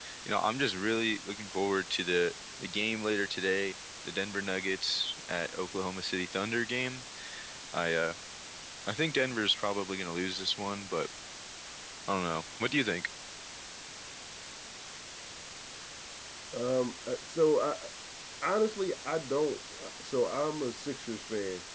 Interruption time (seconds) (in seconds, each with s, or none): none